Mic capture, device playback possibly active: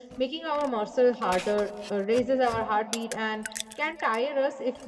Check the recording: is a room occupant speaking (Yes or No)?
No